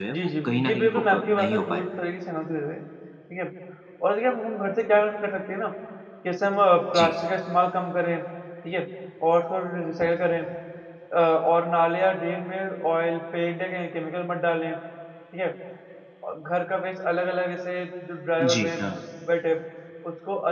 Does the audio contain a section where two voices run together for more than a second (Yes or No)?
Yes